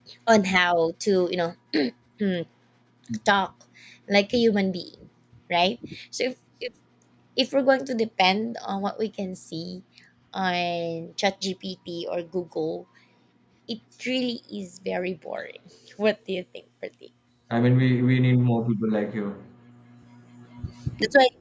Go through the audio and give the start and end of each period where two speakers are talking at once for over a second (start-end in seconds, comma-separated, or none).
none